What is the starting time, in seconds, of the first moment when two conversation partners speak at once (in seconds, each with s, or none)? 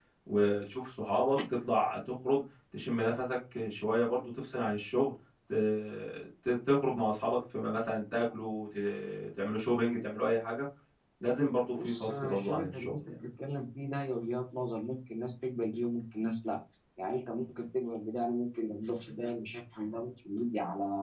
11.7 s